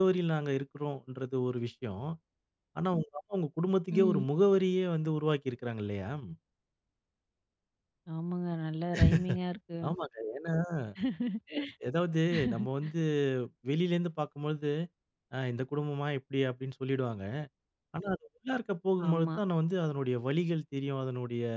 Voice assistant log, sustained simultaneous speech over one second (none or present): none